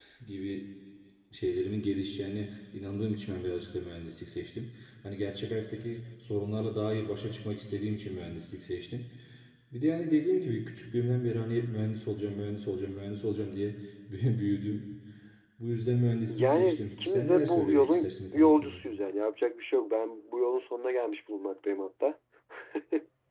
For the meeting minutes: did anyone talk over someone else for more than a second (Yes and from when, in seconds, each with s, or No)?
Yes, from 16.3 s